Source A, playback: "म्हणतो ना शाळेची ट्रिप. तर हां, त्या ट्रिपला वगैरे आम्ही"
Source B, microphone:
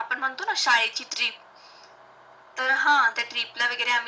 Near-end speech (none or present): none